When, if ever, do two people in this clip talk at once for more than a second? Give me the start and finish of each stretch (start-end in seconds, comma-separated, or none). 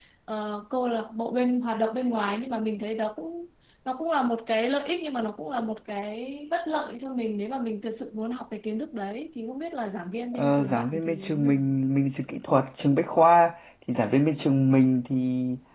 10.3-11.7